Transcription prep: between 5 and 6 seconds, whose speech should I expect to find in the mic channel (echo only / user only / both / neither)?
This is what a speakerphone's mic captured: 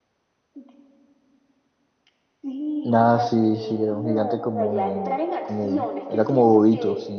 both